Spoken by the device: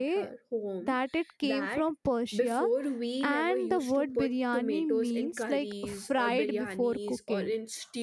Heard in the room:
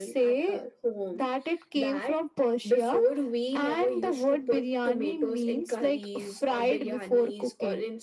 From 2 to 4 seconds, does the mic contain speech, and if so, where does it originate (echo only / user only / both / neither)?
echo only